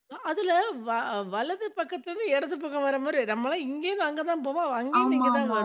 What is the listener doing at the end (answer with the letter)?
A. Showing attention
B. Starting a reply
B